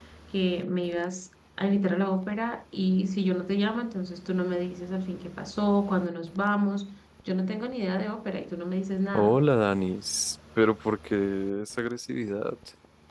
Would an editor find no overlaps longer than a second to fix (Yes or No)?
Yes